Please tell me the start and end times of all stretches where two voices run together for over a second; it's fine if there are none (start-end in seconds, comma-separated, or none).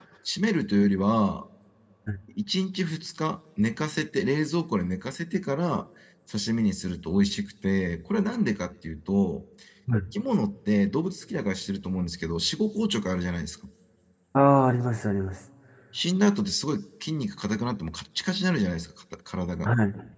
none